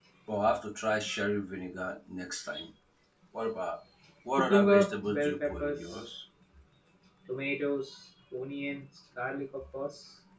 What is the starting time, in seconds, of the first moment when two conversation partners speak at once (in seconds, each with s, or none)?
4.4 s